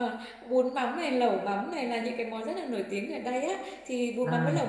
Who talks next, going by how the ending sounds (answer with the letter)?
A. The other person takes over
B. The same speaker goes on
B